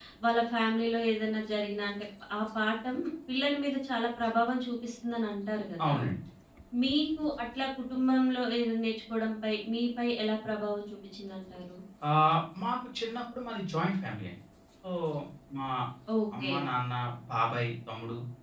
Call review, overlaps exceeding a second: none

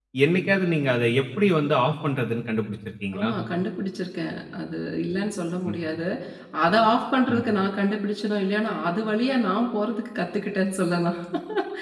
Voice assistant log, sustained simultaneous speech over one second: none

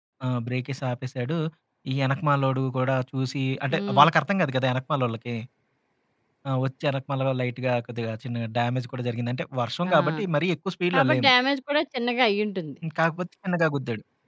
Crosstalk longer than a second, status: none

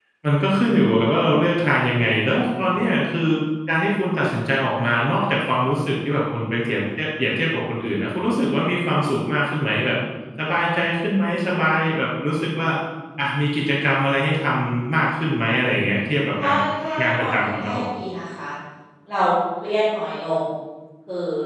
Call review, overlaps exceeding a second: present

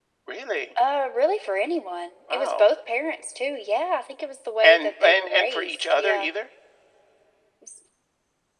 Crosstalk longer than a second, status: present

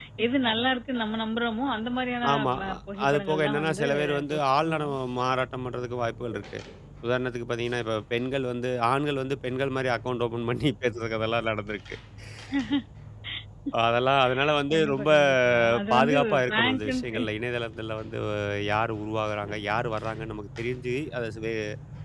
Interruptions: present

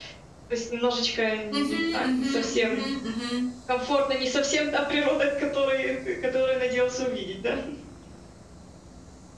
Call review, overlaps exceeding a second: present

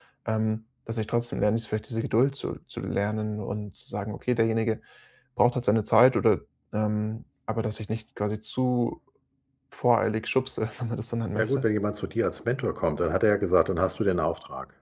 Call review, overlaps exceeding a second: none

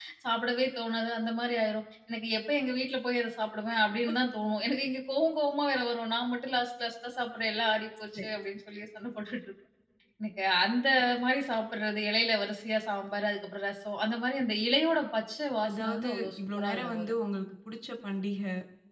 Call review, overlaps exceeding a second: present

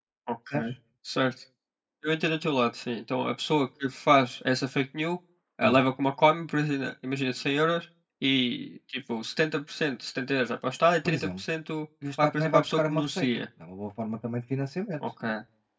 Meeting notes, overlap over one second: present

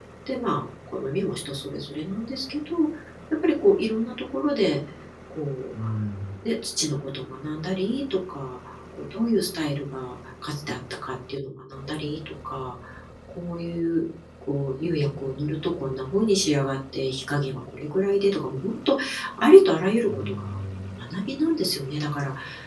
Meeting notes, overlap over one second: none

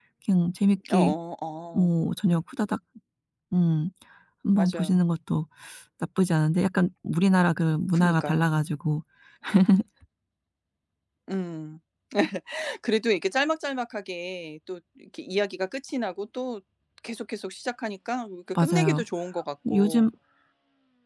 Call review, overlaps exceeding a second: none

